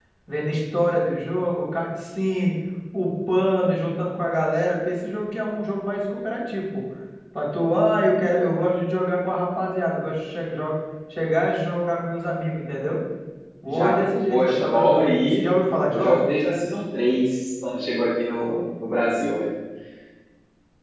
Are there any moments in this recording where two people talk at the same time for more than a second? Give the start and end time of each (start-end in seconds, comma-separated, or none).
13.7-15.5